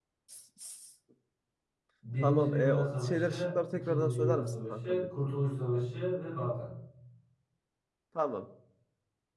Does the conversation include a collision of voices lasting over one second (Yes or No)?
Yes